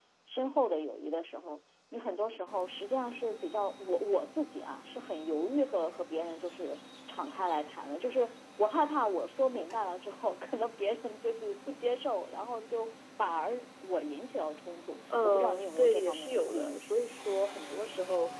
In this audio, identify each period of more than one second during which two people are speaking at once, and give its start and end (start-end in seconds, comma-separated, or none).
15.2-16.8